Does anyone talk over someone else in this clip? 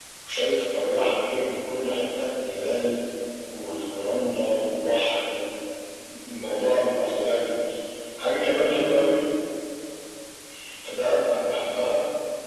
No

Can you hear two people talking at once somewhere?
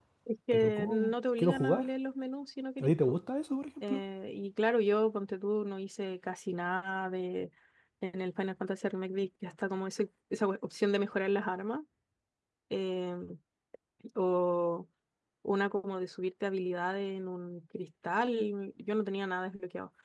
Yes, from 0.5 s

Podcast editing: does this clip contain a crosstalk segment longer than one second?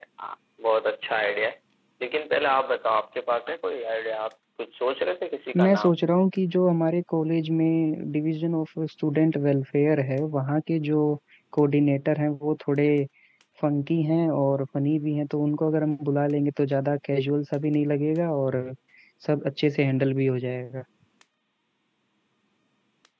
No

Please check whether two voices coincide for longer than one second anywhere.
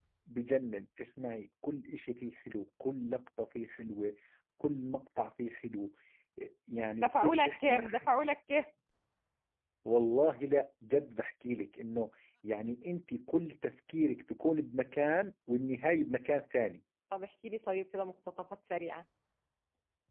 Yes, from 7.0 s

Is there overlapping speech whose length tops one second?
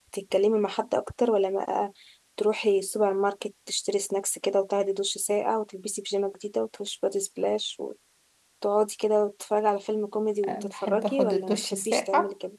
Yes, from 10.4 s

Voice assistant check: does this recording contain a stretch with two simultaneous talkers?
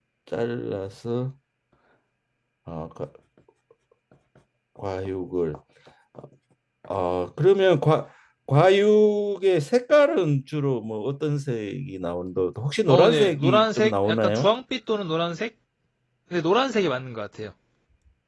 Yes, from 12.9 s

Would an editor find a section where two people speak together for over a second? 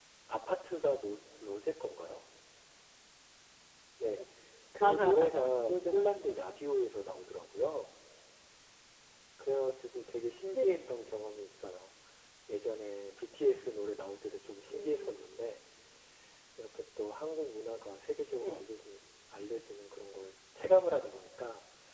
Yes, from 4.8 s

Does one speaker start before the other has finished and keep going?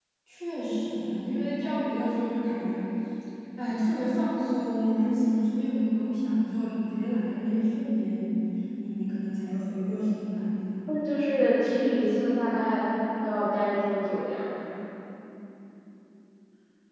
No

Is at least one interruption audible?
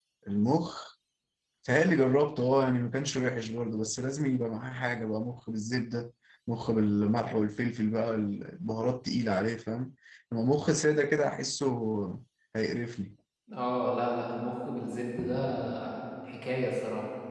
No

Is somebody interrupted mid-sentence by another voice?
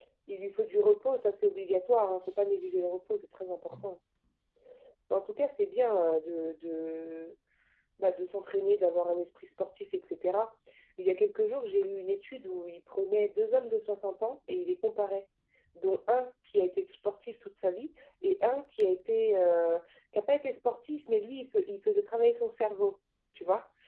No

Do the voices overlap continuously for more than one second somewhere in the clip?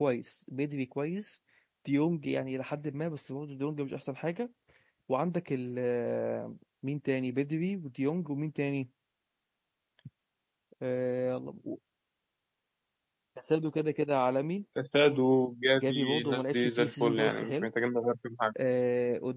Yes, from 15.8 s

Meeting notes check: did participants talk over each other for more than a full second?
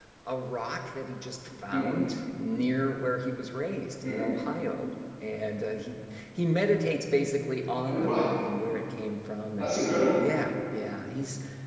No

